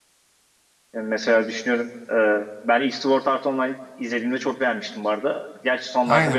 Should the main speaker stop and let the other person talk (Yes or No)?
Yes